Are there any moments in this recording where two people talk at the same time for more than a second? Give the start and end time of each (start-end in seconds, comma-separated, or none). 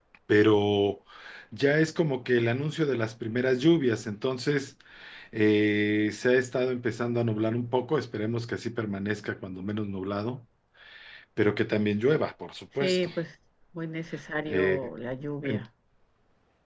none